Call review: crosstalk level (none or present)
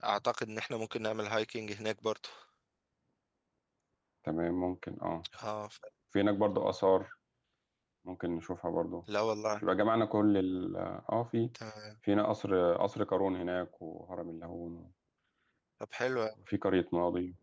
none